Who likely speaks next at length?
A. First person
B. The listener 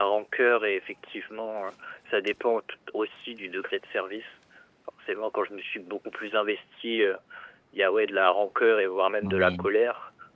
A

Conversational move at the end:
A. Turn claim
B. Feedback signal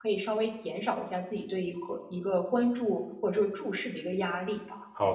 A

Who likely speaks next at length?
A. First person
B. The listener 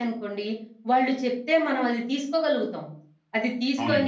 A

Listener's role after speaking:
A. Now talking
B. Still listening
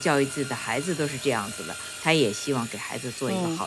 A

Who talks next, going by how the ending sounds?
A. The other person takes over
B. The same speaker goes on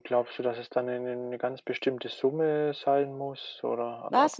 A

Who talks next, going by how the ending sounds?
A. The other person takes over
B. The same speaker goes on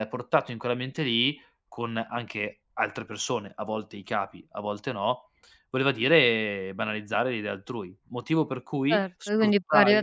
A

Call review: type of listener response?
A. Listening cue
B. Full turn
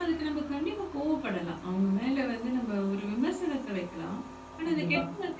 A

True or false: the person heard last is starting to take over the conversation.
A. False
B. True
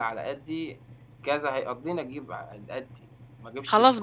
B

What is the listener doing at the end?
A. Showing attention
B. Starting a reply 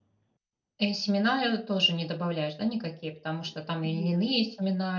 A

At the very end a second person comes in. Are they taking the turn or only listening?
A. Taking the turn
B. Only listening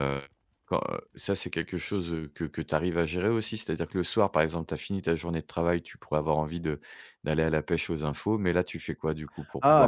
A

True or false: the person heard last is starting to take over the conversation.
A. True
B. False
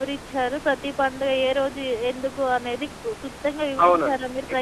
A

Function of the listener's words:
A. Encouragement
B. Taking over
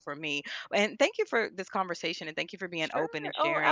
B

